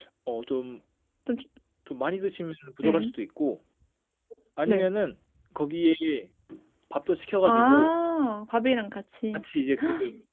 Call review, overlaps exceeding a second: none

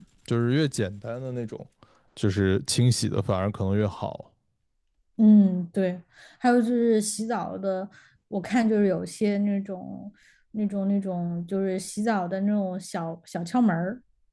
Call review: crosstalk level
none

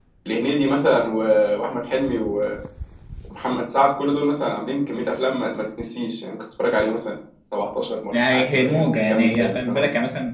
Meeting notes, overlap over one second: present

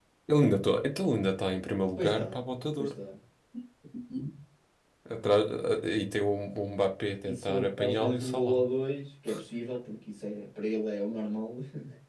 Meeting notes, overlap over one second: present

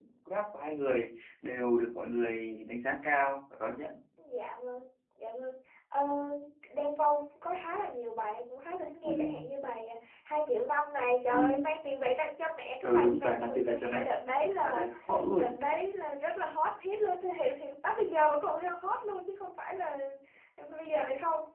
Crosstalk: present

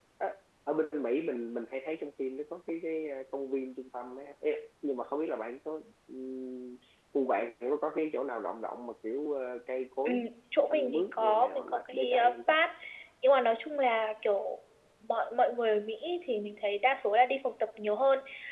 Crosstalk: present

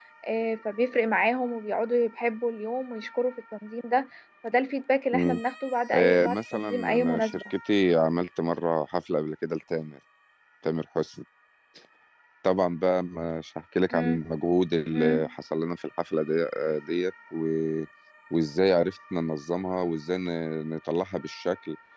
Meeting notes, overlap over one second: present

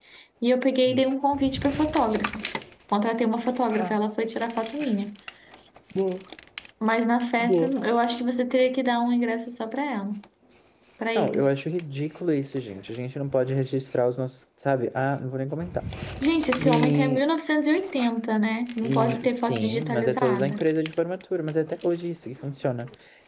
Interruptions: present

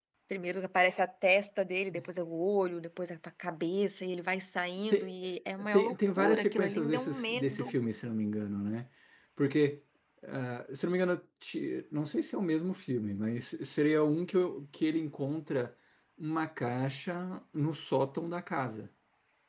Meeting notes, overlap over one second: present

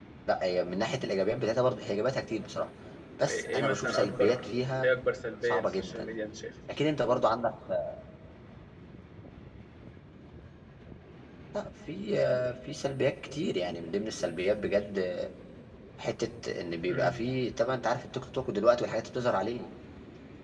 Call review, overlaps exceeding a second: present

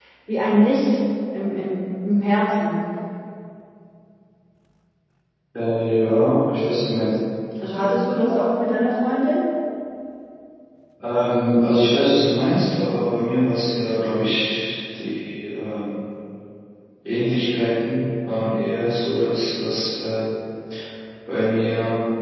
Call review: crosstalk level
none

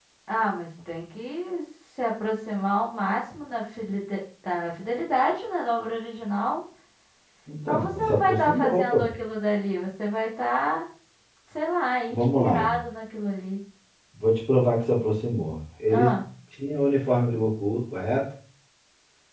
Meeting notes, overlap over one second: present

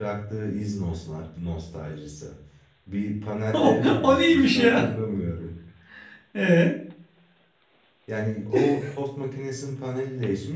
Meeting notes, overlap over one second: present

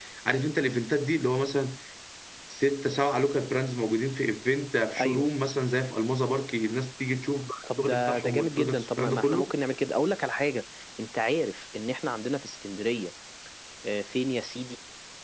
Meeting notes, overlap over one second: present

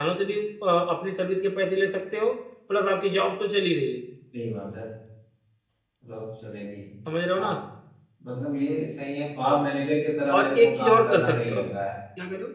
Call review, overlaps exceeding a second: present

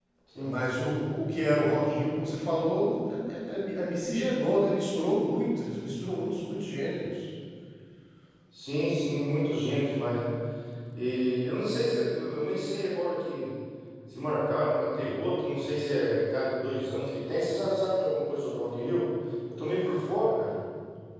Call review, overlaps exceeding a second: none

